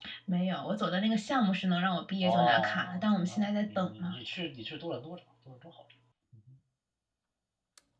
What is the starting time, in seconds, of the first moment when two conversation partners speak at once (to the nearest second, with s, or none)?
2 s